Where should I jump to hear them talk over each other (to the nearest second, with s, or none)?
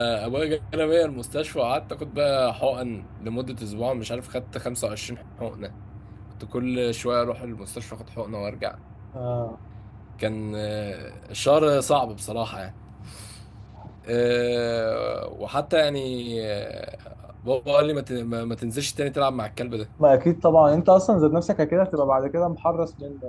none